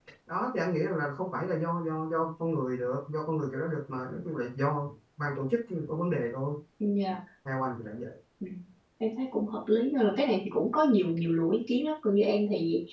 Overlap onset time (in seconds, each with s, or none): none